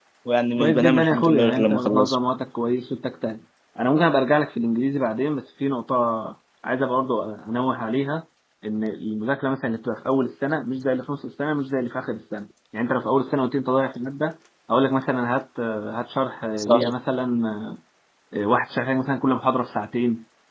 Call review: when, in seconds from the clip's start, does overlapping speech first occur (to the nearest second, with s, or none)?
1 s